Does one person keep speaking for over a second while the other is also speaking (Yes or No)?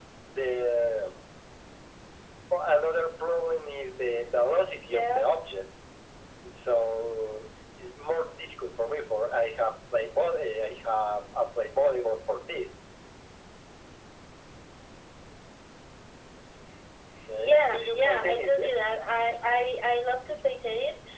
Yes